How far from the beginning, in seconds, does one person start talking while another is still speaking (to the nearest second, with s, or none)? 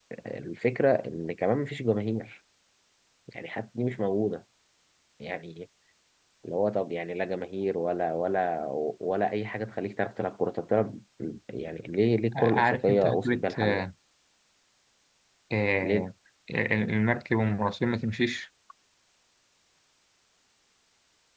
12 s